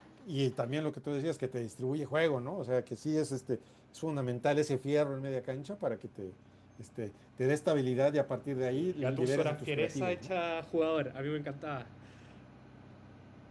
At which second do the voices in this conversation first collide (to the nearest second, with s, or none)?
9 s